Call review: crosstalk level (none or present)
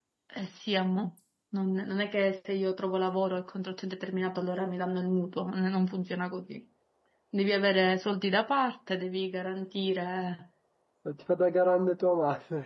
none